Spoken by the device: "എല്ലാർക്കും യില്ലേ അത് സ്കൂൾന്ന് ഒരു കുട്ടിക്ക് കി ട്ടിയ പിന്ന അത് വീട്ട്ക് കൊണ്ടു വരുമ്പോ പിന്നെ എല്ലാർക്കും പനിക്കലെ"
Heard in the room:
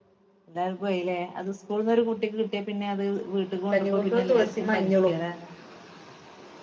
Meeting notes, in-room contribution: present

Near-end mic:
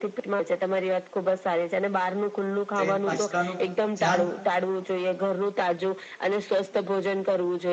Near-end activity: present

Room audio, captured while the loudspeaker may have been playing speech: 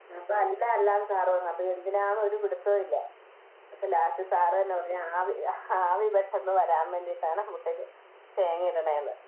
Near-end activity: none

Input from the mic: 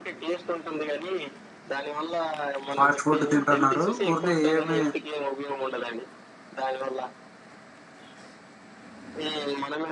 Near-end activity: present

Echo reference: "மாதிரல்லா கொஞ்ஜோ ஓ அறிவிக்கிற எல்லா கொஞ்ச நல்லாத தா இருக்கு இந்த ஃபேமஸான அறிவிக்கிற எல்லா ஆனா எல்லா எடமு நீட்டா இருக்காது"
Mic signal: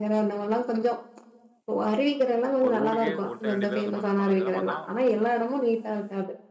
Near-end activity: present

